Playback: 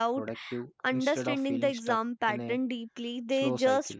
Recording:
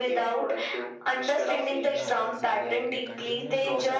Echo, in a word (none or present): present